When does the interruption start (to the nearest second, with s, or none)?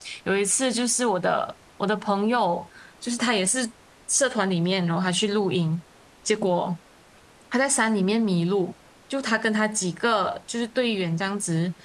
none